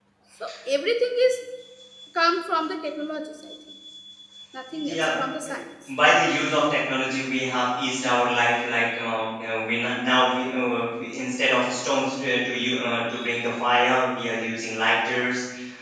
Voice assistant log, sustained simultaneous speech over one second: none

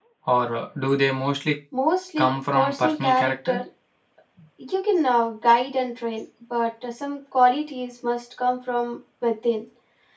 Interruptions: present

